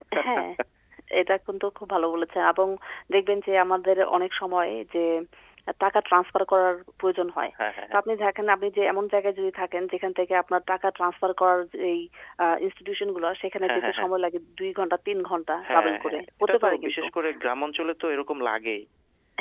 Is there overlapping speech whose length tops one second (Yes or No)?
Yes